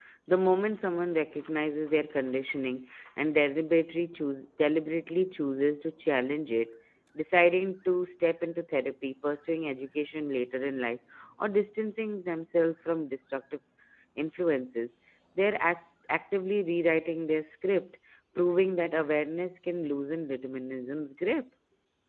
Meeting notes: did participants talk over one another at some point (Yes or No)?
No